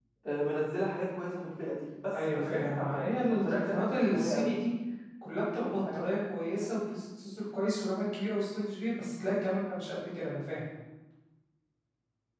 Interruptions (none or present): present